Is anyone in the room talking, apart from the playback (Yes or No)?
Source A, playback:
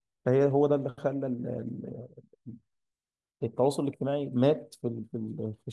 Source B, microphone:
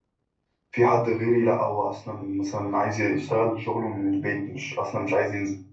Yes